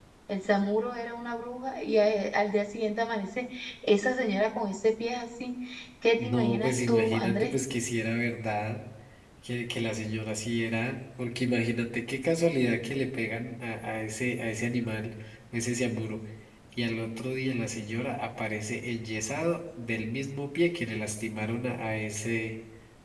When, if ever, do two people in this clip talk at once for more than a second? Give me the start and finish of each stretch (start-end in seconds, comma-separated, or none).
6.2-7.5